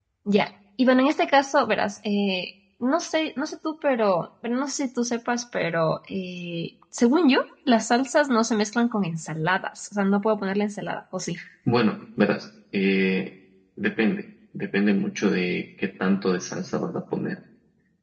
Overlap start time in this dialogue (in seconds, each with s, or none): none